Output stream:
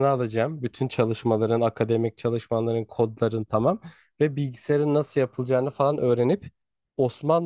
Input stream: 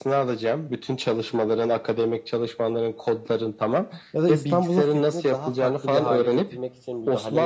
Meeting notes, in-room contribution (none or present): present